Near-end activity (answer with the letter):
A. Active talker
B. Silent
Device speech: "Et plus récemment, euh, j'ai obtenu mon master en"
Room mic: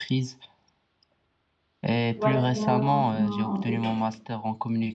A